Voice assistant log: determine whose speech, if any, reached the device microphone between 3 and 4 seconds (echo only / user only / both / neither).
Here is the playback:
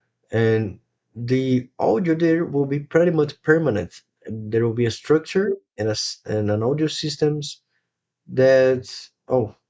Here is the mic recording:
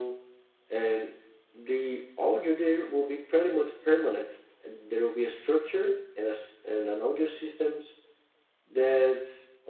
echo only